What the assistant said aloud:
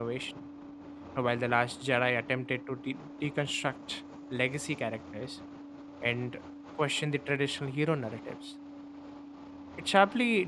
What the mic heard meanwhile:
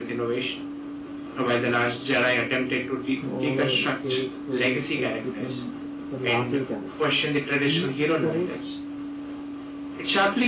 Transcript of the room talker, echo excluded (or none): smaller scale stories set within th- the larger galaxy. So these shows